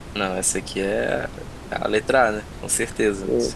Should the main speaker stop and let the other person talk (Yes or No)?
Yes